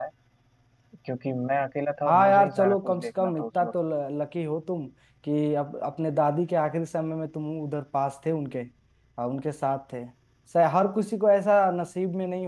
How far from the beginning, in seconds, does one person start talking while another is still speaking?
2.0 s

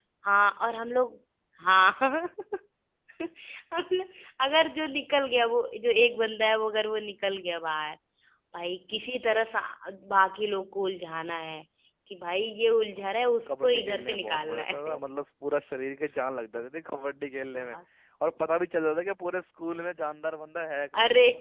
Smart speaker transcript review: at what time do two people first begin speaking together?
13.6 s

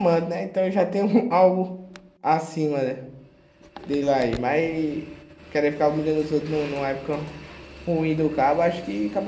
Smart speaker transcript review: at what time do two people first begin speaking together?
none

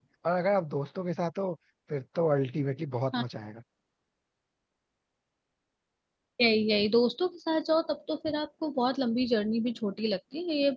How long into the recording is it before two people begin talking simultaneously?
none

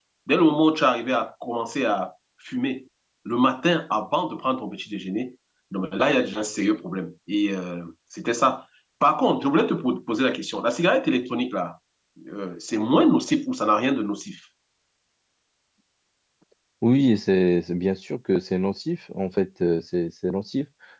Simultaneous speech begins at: none

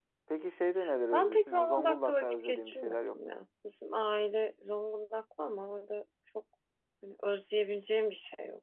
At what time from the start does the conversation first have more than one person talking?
1.1 s

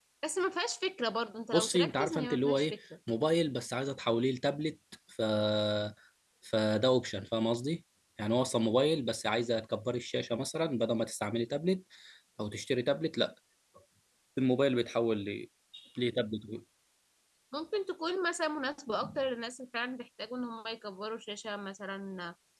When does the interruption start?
1.5 s

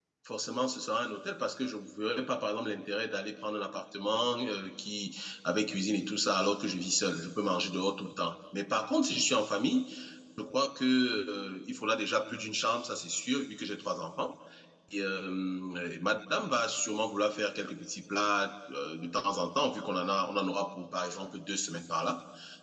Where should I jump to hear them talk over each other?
none

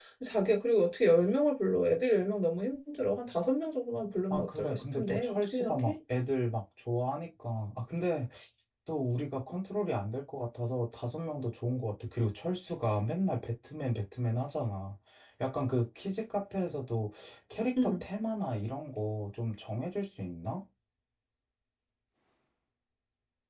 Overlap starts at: 4.3 s

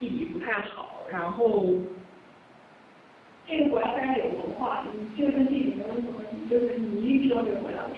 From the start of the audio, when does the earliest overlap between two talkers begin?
none

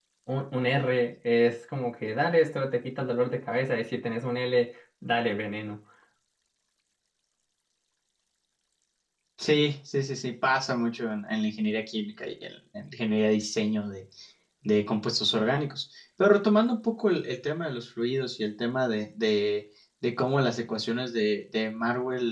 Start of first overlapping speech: none

